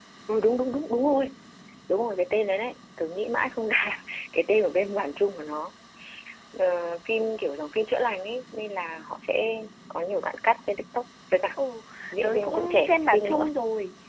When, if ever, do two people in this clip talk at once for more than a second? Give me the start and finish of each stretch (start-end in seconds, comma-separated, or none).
12.2-13.5